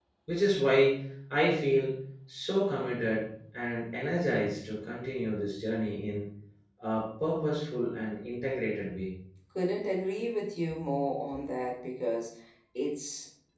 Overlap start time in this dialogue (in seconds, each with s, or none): none